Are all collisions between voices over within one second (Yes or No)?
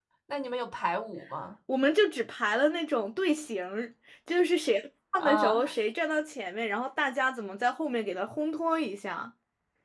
Yes